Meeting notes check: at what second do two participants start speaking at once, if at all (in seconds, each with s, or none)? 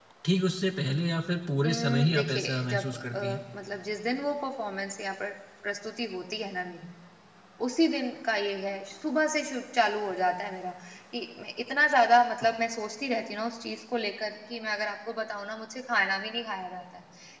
1.6 s